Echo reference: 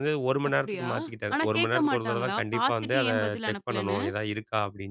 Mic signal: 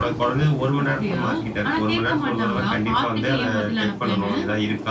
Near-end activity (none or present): none